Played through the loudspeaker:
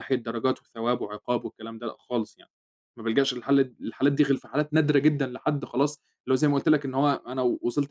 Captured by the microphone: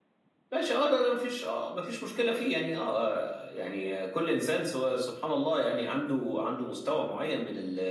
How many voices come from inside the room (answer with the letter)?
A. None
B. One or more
B